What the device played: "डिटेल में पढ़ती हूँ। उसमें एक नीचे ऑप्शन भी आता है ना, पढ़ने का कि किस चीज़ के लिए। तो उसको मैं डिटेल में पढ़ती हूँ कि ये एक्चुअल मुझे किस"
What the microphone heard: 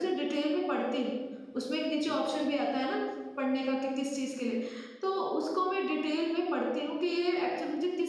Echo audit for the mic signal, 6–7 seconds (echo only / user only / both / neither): echo only